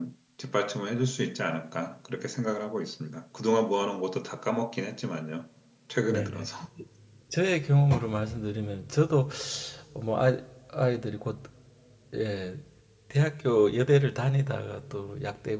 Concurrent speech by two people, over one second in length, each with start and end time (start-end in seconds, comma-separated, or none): none